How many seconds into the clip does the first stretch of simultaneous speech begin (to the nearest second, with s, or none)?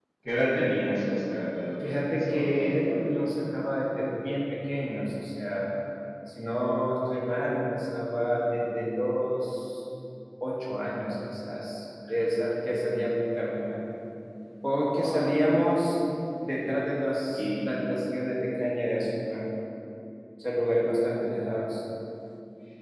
2 s